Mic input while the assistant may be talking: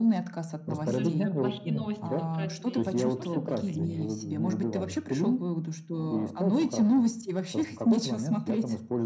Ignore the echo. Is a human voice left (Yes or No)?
Yes